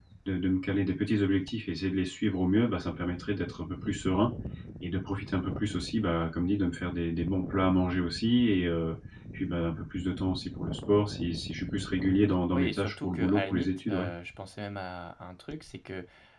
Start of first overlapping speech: 12.5 s

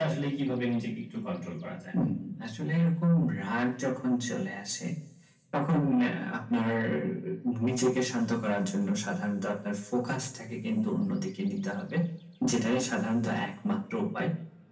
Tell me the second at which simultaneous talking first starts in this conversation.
none

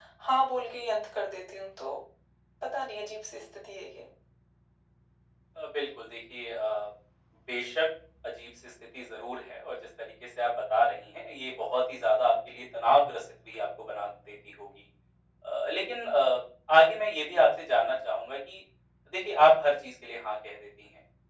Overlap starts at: none

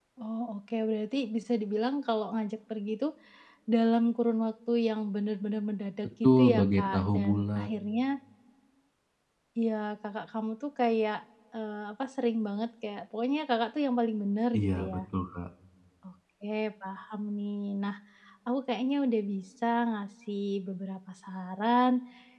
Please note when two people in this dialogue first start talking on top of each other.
6.2 s

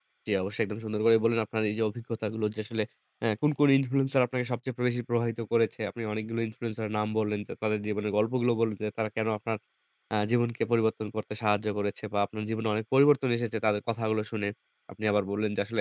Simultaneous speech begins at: none

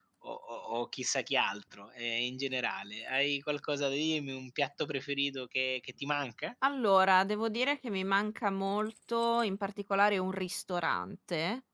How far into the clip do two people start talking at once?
none

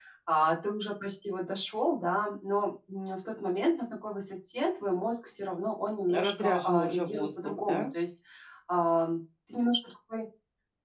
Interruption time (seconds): 6.1 s

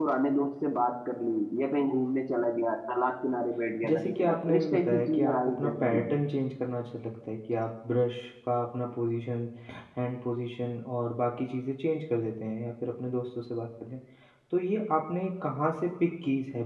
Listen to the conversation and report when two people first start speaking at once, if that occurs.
3.9 s

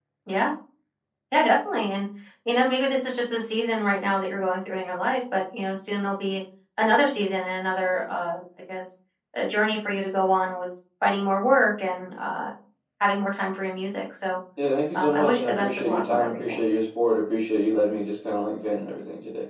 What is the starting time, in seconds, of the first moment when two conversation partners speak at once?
14.9 s

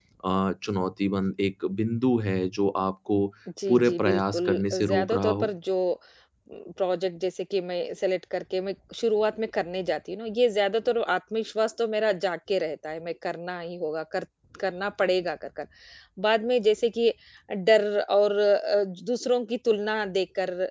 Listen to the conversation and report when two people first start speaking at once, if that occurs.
3.7 s

